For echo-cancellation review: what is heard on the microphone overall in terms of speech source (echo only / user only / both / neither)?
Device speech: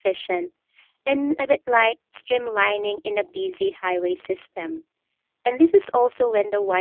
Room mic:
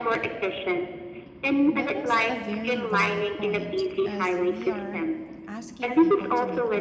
both